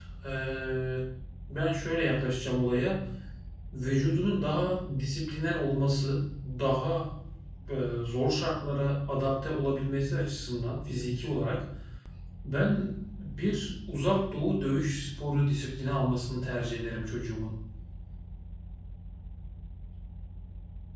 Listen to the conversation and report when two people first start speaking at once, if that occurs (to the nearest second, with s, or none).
none